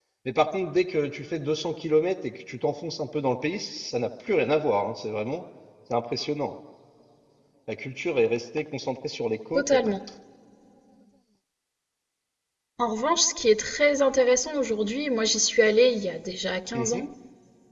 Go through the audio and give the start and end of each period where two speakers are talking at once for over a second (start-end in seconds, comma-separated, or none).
none